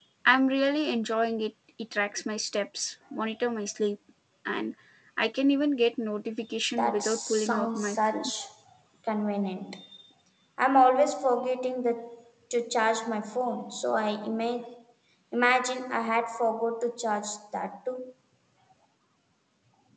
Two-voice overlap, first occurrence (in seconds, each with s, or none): 6.7 s